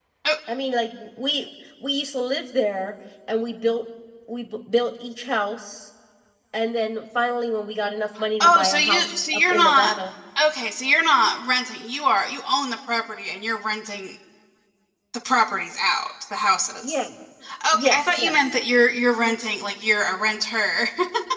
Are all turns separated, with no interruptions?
No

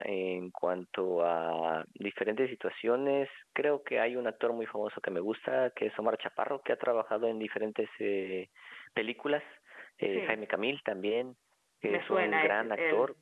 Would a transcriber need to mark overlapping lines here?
Yes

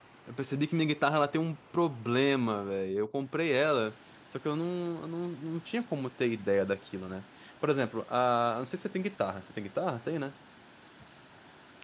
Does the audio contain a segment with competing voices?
No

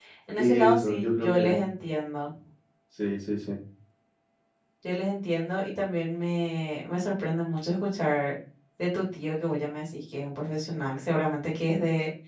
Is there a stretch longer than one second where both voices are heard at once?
Yes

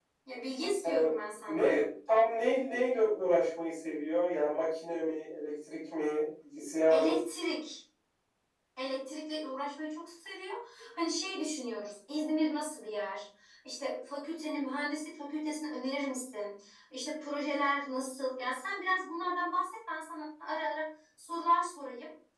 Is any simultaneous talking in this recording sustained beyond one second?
No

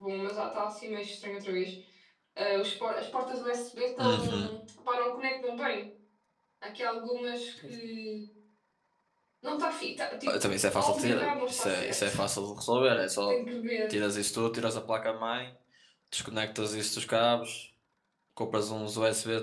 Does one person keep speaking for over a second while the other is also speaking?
Yes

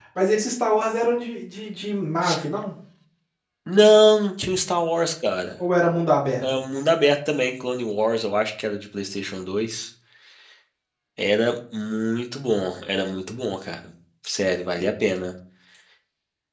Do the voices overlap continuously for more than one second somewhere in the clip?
No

